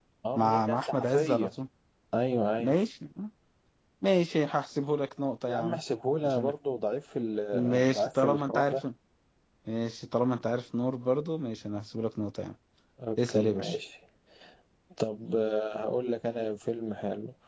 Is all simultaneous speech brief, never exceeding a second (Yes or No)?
No